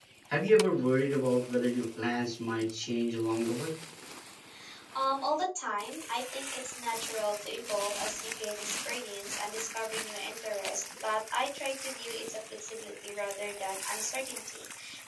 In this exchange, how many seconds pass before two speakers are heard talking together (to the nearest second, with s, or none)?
none